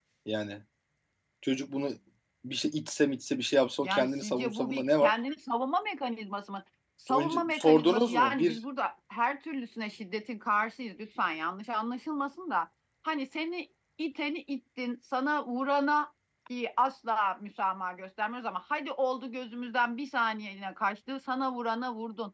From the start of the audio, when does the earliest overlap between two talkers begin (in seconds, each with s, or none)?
3.8 s